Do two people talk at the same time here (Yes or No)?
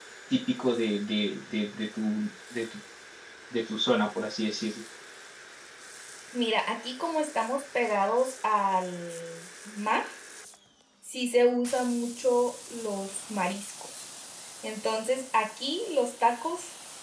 No